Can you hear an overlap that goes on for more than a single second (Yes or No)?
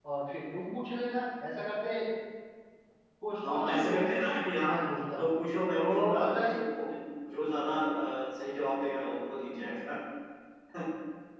Yes